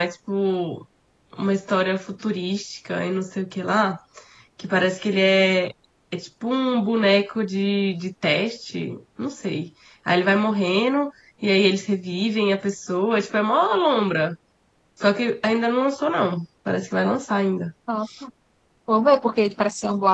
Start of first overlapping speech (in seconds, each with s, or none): none